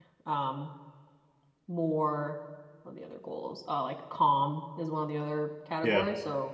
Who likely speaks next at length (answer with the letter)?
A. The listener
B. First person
B